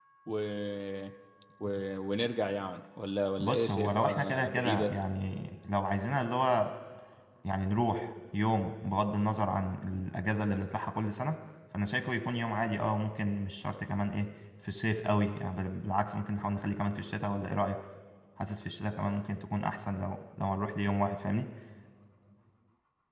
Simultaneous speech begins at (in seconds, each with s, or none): 3.4 s